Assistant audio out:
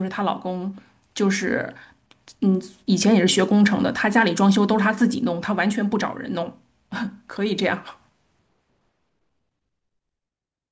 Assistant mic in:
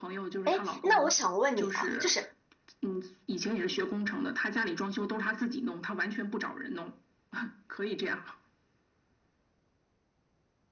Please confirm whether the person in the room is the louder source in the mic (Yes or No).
Yes